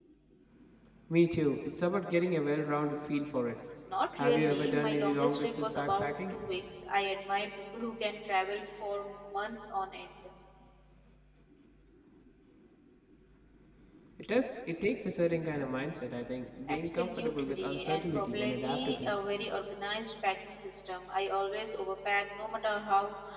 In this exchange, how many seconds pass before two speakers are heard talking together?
4.2 s

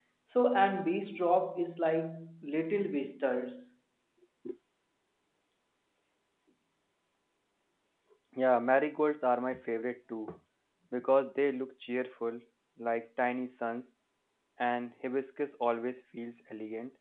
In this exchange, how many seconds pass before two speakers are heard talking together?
none

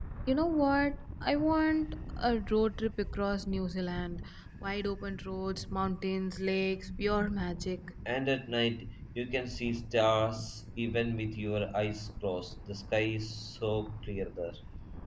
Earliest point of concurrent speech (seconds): none

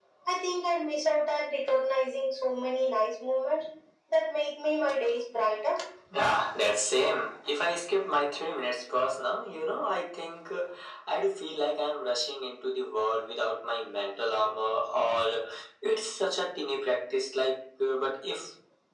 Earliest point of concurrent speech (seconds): none

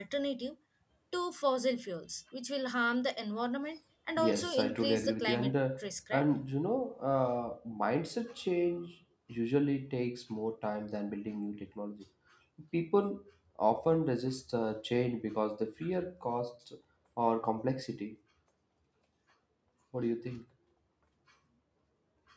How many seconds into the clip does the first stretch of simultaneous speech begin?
4.2 s

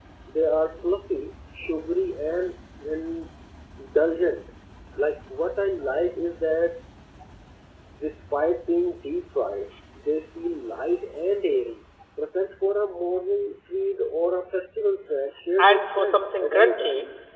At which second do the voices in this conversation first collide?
15.6 s

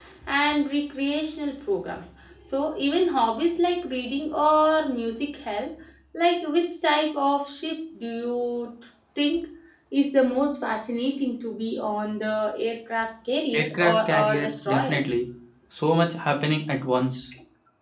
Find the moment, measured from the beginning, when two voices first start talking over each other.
13.5 s

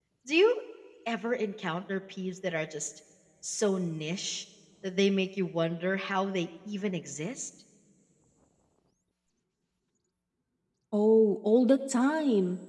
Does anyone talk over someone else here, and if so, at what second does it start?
none

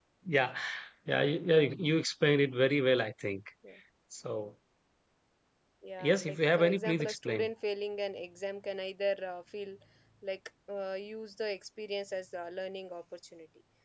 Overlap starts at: 6.0 s

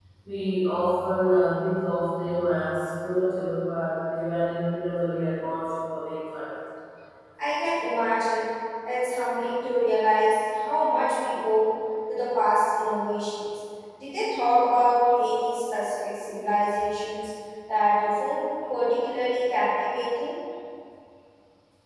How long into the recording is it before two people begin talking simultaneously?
none

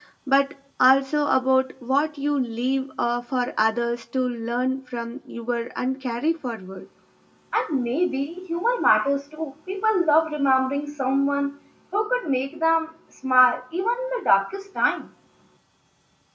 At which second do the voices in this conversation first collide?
none

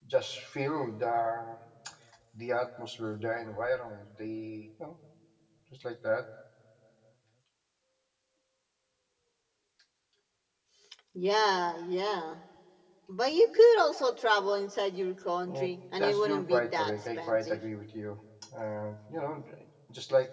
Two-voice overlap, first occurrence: 15.5 s

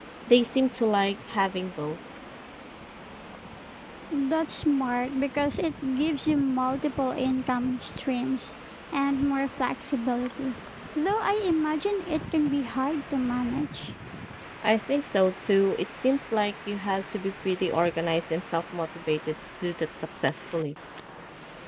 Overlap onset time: none

